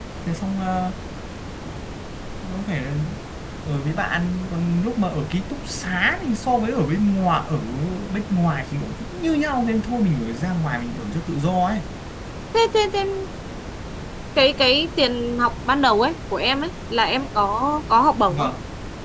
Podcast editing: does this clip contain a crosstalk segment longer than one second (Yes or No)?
No